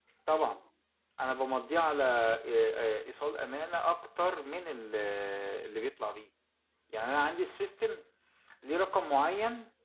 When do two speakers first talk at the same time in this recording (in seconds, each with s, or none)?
none